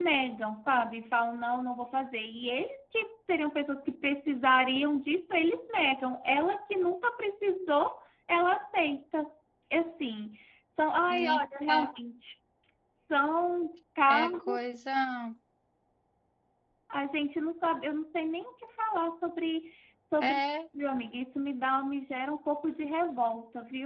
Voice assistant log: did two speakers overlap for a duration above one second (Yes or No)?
No